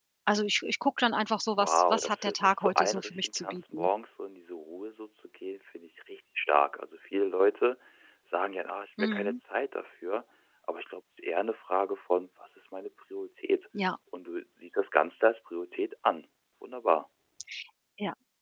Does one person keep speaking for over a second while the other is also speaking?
Yes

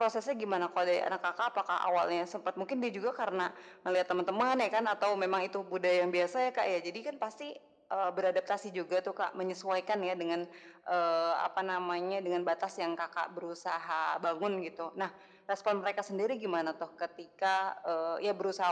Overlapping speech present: No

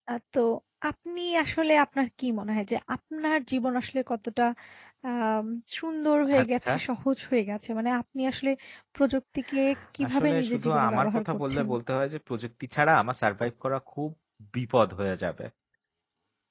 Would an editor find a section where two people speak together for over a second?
Yes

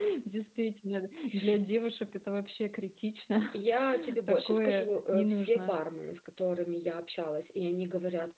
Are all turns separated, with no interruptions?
No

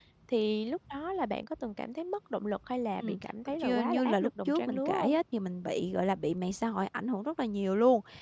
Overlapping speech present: Yes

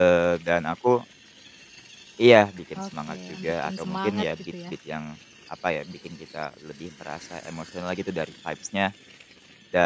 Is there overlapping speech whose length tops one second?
Yes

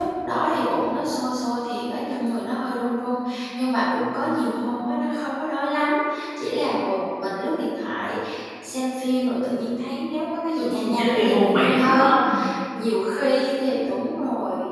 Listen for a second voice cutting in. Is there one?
Yes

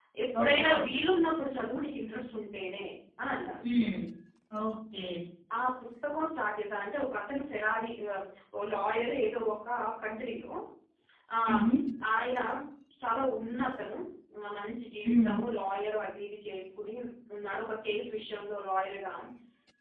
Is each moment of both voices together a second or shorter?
Yes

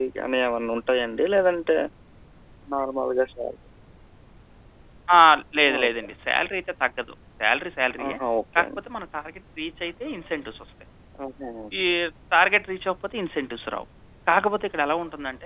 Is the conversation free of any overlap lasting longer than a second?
Yes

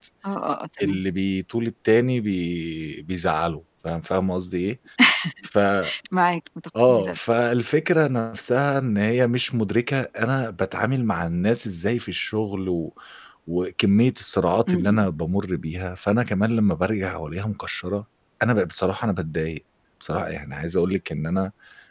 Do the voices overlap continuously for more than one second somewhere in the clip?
No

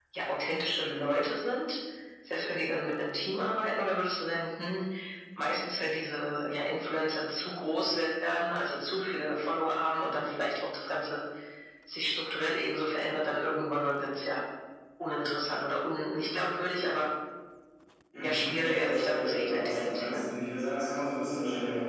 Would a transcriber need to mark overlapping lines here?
Yes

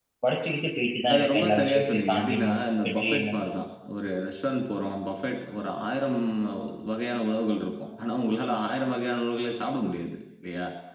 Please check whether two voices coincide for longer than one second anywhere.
Yes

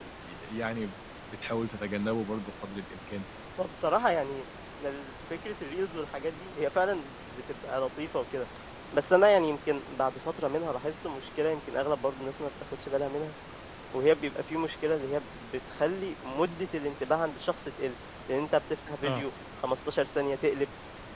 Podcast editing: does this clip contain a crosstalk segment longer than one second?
No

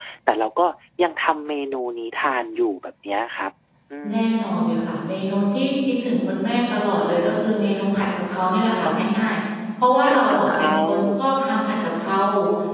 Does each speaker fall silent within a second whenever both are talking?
No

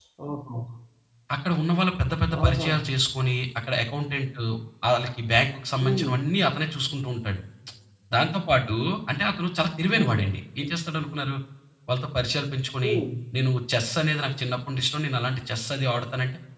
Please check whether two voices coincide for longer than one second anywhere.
No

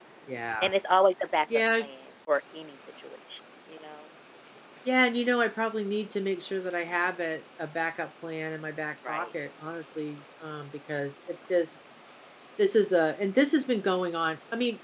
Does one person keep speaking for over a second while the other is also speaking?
No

